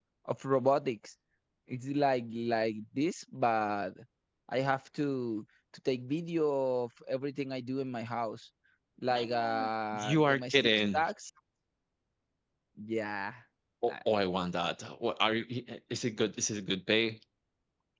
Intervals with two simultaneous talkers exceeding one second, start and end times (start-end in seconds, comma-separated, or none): 9.1-11.0